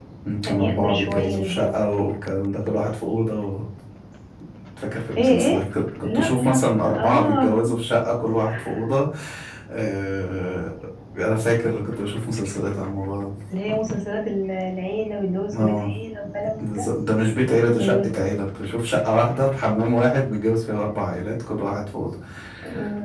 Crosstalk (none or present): present